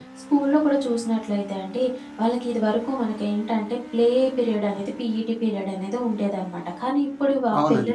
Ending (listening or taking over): listening